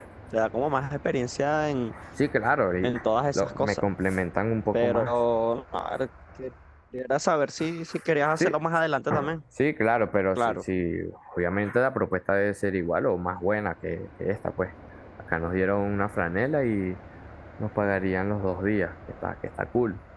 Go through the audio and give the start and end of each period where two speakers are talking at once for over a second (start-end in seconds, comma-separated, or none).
none